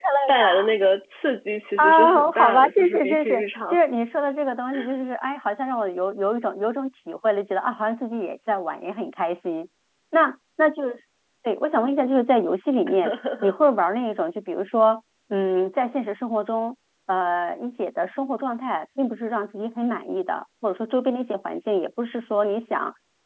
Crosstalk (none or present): present